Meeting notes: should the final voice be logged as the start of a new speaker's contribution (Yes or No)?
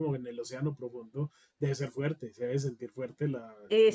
Yes